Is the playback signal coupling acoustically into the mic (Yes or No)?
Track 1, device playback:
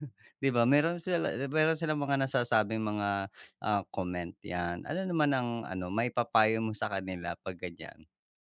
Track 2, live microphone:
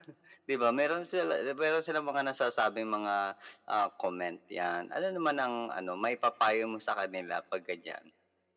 Yes